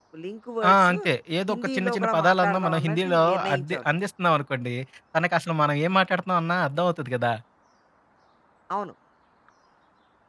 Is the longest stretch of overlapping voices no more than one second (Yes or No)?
No